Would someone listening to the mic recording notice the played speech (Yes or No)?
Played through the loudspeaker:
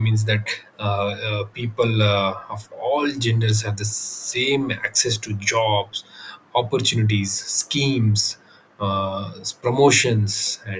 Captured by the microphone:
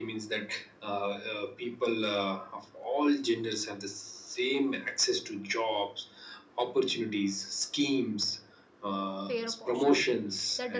Yes